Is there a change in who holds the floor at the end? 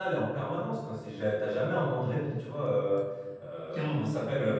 No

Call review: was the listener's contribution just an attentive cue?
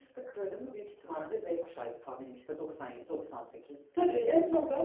No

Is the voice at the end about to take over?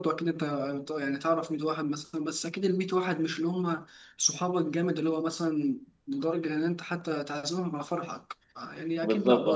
No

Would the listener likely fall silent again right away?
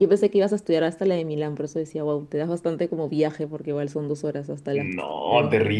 No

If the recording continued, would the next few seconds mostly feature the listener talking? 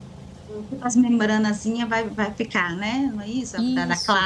Yes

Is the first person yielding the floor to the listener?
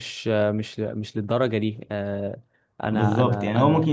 Yes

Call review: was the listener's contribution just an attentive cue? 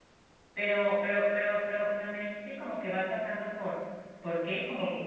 No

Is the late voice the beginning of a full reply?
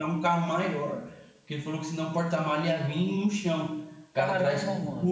No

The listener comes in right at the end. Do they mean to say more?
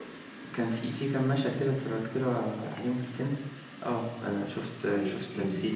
Yes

